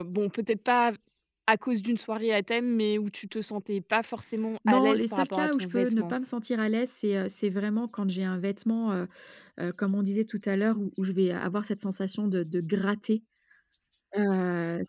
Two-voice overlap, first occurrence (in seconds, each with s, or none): 4.7 s